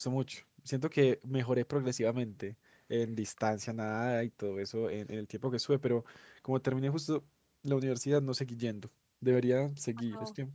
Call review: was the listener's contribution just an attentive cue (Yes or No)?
Yes